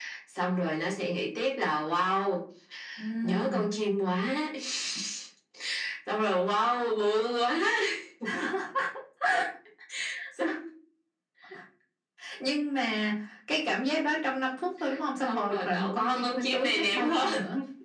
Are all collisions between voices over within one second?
No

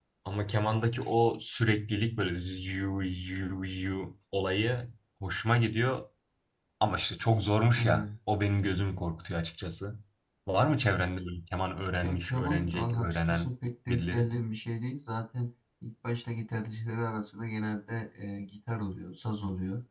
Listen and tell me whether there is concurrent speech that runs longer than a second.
Yes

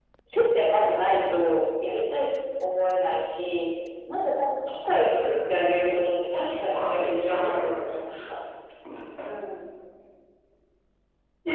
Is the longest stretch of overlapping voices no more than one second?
No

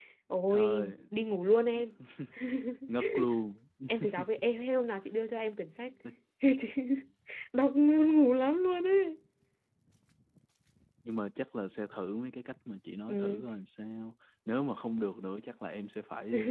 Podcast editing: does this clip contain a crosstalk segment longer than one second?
No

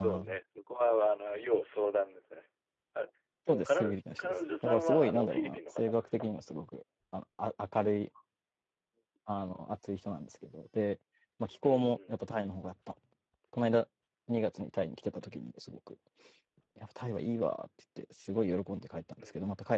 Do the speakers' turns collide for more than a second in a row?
Yes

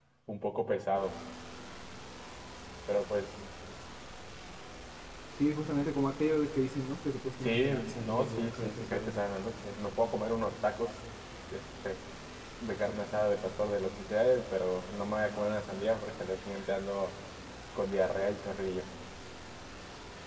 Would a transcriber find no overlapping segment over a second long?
No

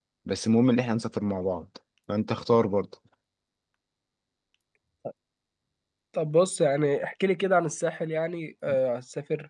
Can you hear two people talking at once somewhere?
No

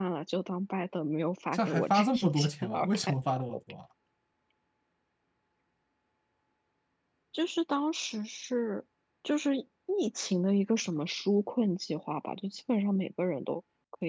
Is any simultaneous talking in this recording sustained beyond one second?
Yes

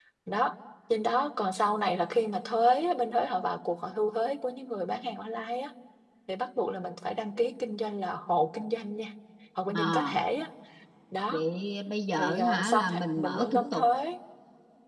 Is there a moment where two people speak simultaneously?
Yes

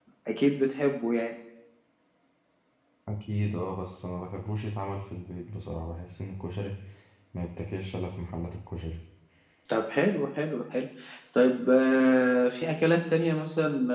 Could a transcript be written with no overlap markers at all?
Yes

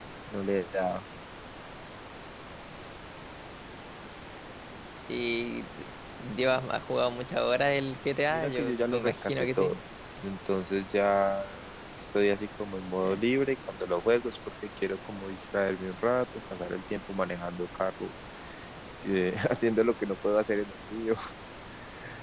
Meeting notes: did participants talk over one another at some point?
Yes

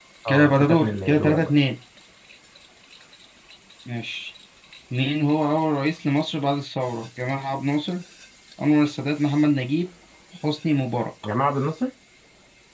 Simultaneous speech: Yes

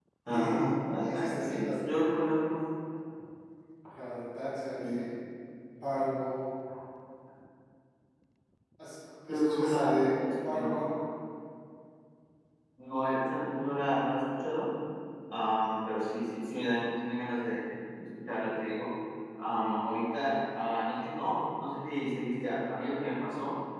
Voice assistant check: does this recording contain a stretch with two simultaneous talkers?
Yes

